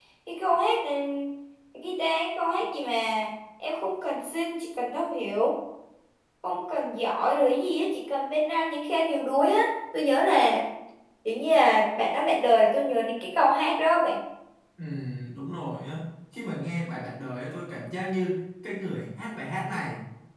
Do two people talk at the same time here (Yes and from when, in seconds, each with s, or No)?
No